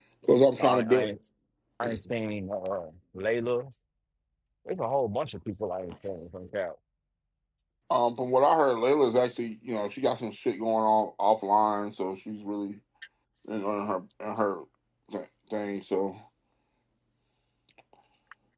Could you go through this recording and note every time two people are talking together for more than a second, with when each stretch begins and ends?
none

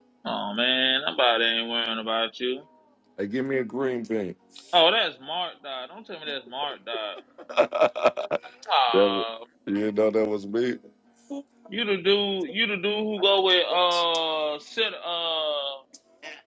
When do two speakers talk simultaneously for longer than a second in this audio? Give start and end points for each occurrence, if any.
none

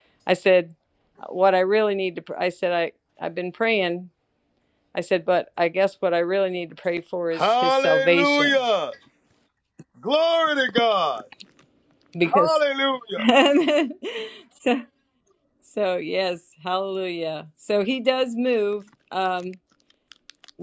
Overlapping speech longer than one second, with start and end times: 7.3-8.6

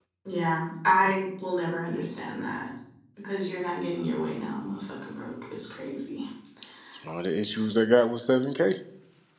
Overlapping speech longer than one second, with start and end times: none

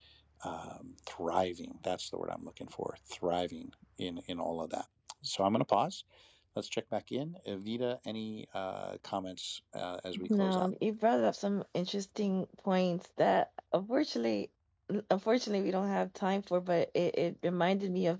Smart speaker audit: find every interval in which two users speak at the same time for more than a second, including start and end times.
none

